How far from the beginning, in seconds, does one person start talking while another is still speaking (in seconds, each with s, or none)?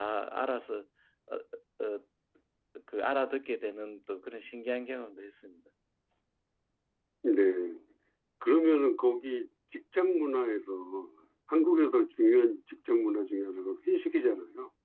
none